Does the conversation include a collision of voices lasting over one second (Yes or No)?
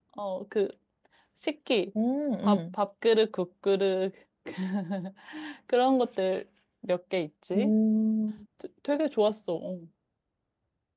No